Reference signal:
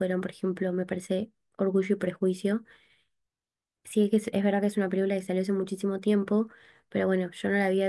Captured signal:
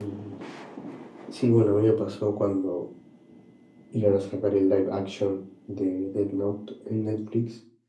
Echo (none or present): none